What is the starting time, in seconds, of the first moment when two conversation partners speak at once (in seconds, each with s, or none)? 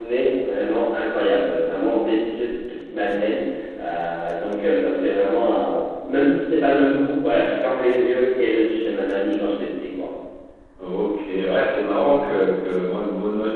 none